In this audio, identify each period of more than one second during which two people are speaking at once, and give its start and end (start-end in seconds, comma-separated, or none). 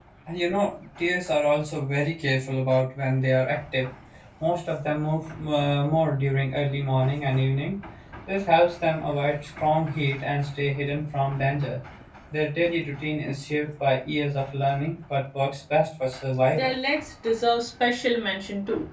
none